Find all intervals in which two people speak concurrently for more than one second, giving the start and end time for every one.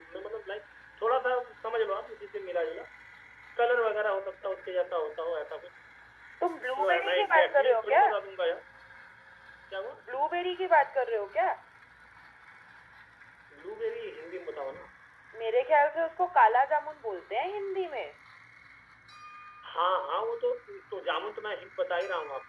6.8-8.0

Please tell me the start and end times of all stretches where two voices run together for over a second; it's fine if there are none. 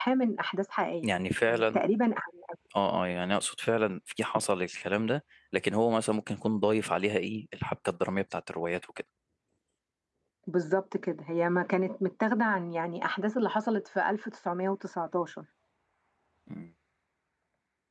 none

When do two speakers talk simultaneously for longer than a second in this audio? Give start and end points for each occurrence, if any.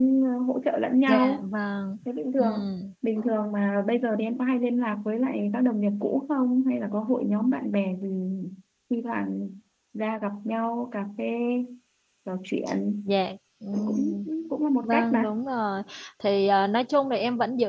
none

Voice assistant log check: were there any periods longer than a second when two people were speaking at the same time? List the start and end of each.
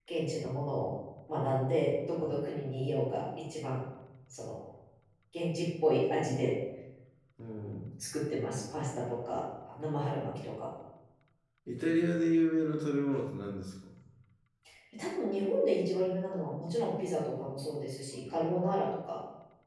none

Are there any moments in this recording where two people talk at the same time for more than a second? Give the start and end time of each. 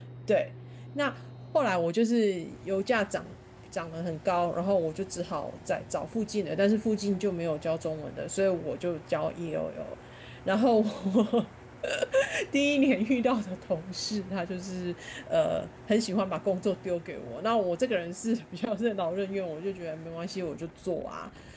none

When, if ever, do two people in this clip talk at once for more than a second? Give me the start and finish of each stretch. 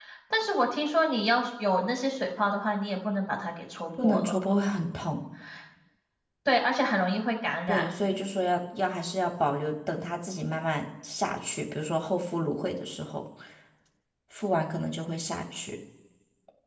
none

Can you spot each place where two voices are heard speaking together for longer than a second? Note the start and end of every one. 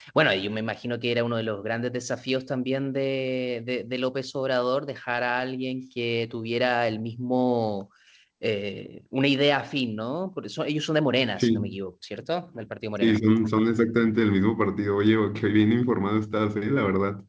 none

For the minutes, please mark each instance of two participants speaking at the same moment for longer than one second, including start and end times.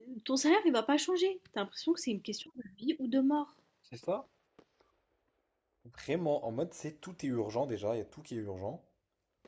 none

